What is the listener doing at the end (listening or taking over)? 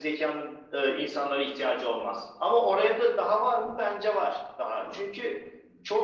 listening